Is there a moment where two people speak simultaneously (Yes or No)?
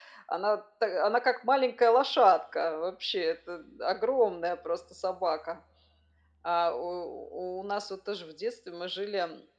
No